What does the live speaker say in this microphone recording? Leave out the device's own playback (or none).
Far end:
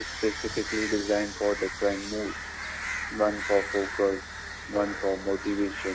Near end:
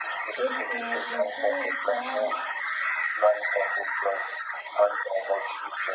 it's like my thoughts start